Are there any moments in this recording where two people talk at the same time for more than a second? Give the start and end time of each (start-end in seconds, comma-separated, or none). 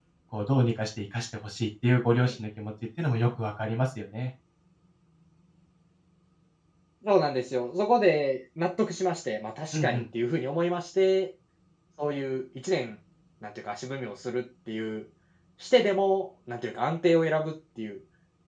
none